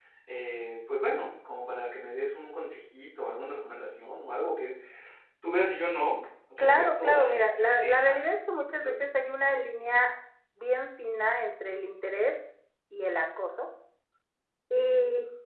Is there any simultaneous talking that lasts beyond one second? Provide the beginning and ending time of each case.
6.6-8.2

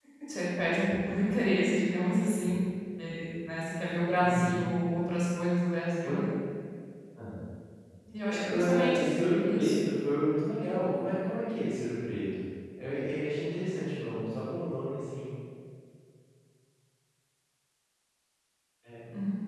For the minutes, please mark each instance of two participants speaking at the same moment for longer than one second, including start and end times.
8.3-9.8

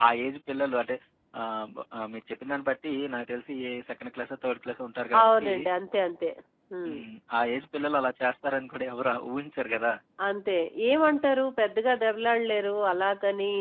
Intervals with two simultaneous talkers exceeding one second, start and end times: none

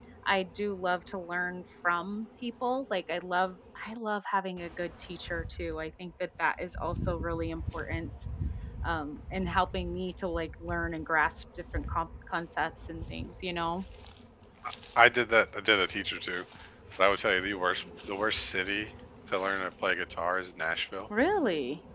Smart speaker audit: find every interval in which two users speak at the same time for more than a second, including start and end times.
none

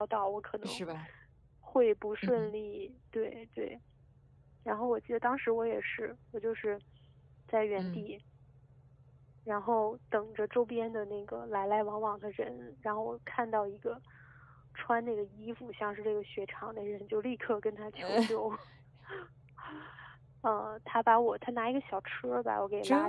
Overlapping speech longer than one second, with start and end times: none

